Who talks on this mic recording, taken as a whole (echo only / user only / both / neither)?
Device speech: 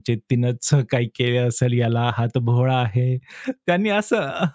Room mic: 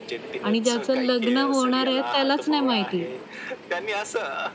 both